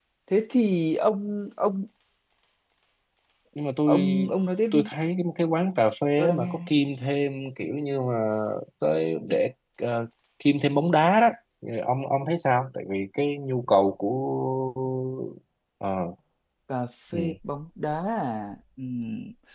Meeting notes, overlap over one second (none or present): none